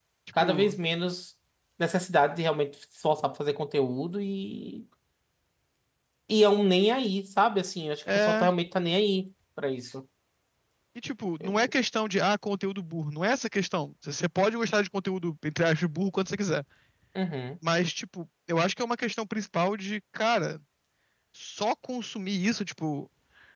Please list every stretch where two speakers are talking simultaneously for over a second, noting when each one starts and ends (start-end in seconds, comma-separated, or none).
none